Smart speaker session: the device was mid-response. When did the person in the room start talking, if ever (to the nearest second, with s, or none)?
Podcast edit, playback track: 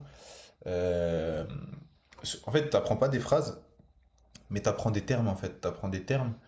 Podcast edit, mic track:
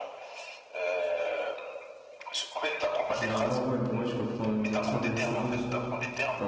3 s